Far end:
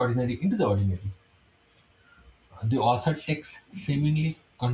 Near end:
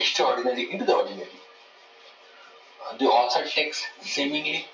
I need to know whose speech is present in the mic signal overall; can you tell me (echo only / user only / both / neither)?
echo only